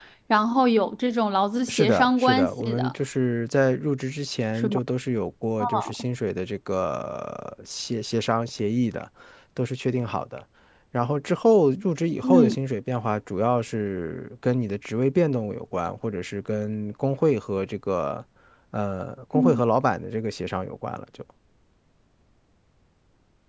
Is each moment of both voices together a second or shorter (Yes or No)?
No